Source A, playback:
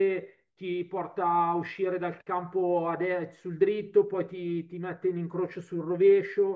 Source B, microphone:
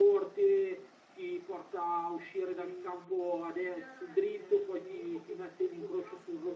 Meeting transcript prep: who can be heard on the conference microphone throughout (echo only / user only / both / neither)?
both